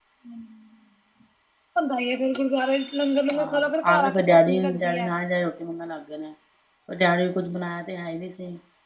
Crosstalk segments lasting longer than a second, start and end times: 3.4-5.1

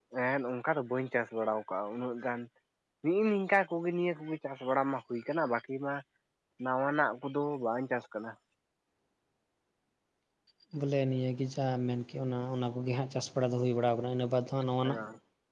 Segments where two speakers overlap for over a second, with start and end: none

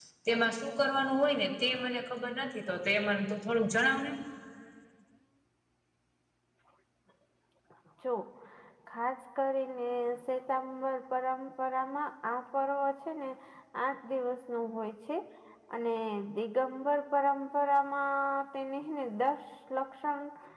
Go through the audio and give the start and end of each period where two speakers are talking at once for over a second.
none

